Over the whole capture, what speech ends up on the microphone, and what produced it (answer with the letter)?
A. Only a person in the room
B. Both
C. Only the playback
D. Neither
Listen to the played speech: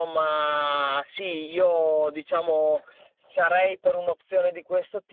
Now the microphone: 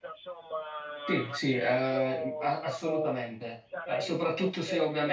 B